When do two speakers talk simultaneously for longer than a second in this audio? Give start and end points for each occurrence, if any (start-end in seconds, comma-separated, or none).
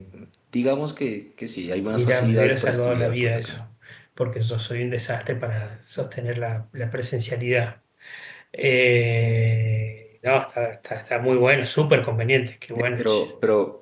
1.9-3.6